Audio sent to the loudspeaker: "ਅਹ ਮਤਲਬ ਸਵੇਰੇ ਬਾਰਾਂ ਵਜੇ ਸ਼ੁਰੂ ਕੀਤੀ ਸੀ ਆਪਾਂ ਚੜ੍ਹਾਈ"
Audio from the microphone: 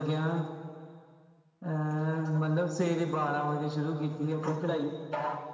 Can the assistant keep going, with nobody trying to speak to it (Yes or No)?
Yes